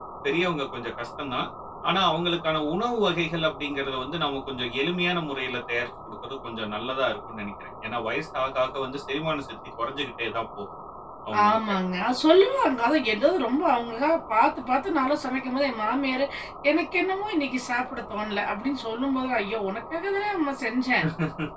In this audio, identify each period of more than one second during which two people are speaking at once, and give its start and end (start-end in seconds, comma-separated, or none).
none